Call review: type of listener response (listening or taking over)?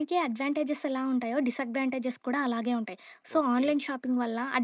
listening